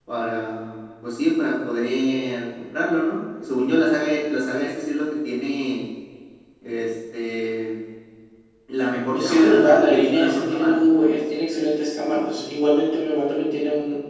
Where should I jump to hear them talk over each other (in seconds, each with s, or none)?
9.1 s